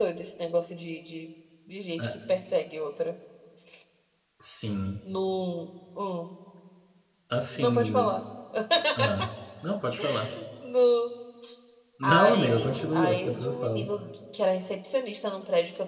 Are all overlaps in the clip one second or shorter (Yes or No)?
No